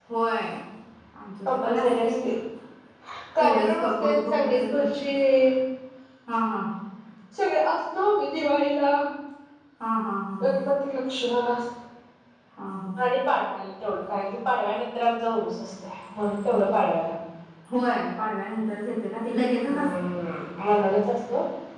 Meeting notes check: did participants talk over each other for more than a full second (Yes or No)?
Yes